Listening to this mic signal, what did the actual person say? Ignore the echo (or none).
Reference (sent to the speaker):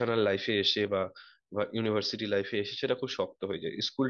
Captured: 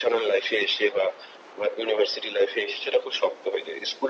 none